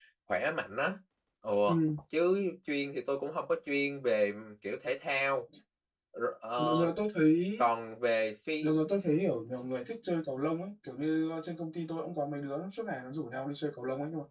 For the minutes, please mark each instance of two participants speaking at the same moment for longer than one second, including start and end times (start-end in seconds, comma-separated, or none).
none